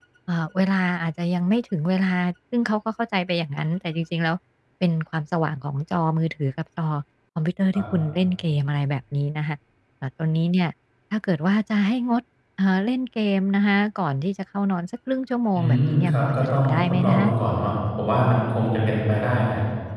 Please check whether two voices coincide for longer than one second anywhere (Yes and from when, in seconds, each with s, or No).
Yes, from 15.6 s